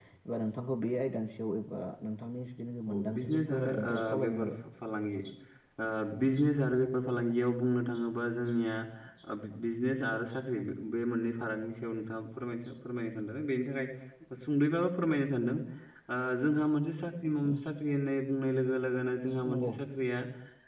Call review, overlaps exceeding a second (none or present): present